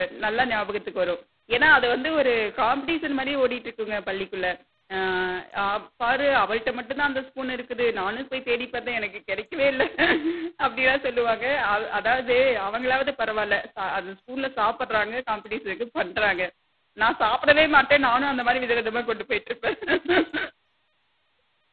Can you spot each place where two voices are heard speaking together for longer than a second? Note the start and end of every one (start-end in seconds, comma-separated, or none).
none